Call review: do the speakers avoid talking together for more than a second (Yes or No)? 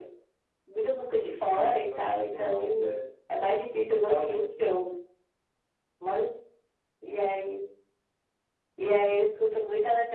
No